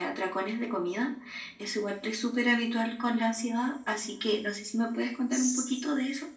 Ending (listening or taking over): taking over